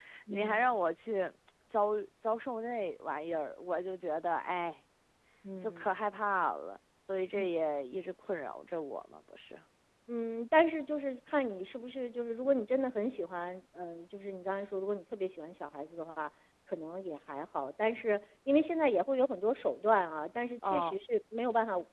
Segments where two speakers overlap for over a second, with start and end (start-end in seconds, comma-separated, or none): none